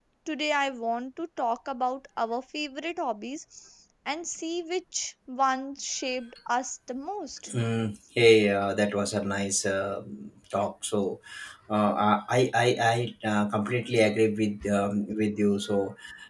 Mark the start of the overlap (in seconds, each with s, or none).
none